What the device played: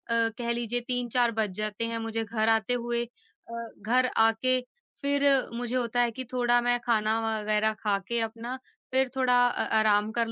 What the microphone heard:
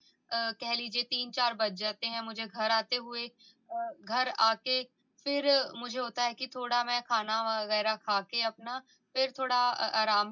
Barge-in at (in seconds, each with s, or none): none